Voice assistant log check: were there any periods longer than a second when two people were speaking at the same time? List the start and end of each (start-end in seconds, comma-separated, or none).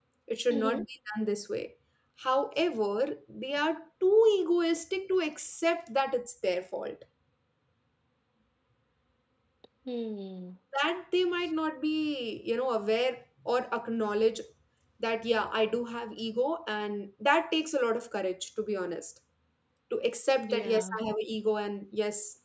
none